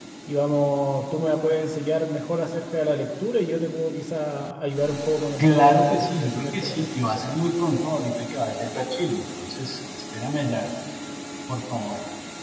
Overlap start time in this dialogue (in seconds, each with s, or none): 5.4 s